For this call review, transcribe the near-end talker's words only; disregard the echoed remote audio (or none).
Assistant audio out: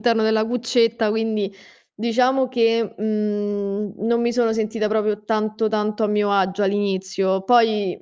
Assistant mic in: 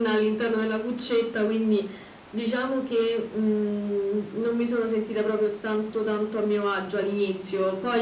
none